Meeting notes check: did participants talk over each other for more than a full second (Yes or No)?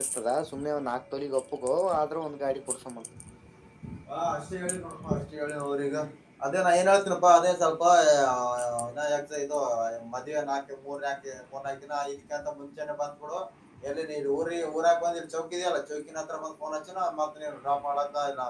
No